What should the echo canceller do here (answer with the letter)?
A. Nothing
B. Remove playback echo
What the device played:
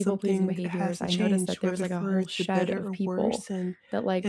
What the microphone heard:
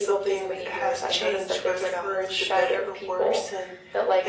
B